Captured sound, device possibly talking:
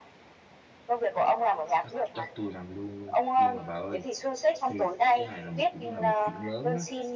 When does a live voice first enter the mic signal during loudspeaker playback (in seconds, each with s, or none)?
1.8 s